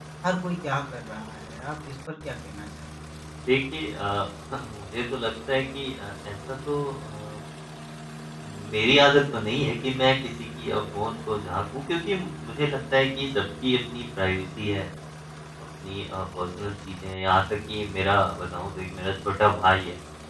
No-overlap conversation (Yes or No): Yes